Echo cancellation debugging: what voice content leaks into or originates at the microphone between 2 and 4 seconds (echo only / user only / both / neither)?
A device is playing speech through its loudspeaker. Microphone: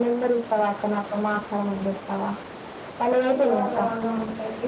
both